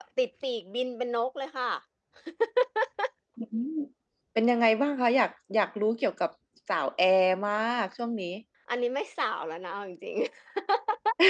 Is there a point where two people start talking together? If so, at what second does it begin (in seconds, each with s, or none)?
none